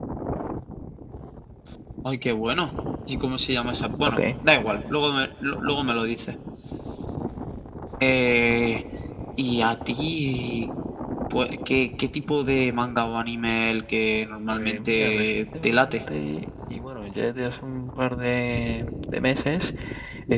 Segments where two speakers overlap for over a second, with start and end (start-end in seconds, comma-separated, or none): 14.5-16.0